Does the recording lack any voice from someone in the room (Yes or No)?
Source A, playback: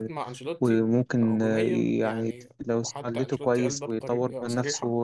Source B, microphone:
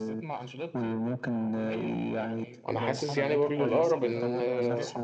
No